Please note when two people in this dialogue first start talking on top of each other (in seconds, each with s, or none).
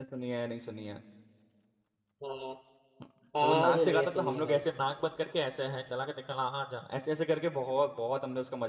3.4 s